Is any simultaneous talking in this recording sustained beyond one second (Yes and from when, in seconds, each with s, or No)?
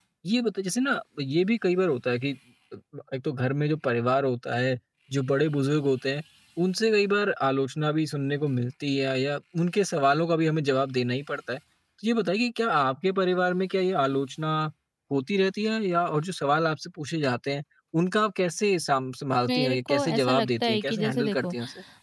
Yes, from 19.4 s